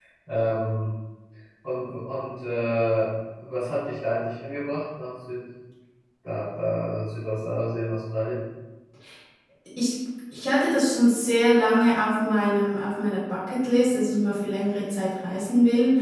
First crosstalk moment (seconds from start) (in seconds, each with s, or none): none